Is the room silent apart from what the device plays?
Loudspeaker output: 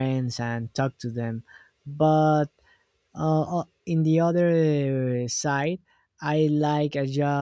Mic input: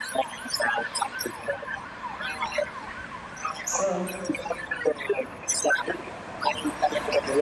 No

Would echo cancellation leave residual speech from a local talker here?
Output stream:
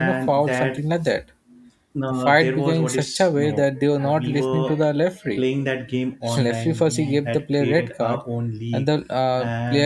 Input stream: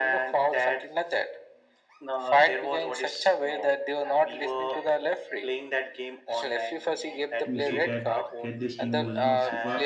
Yes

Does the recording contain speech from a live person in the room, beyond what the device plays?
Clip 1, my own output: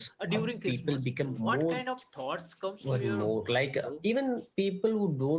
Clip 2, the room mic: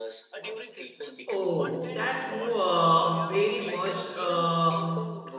Yes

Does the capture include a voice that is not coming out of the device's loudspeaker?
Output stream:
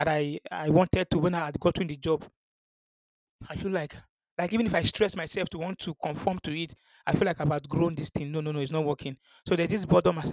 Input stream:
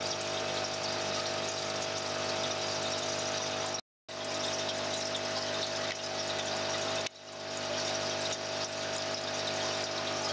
No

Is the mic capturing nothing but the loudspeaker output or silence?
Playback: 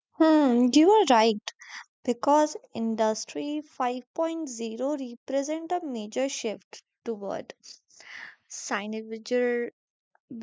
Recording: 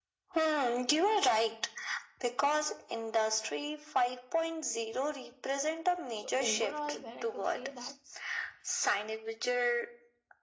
No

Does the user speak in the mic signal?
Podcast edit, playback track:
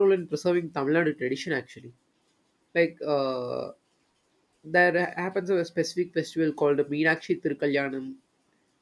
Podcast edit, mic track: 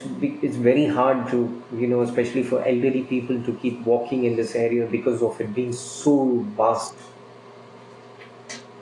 Yes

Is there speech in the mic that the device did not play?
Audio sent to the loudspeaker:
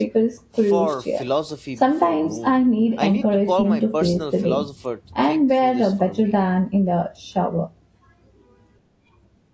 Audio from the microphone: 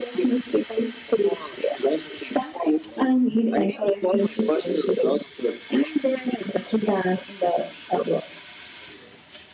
No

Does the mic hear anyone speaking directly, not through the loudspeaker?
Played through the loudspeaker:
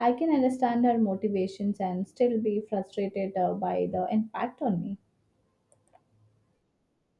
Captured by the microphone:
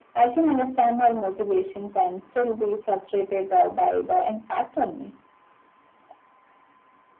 No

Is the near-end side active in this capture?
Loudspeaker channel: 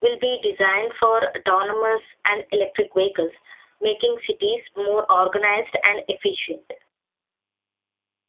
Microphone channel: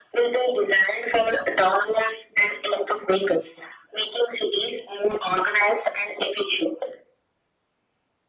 No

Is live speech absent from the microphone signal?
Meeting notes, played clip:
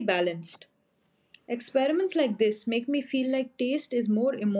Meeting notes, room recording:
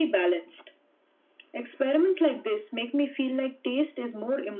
Yes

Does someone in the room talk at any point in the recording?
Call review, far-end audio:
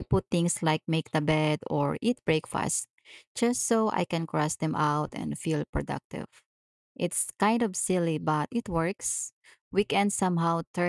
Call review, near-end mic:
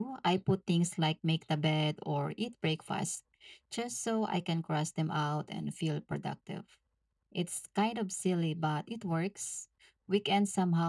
No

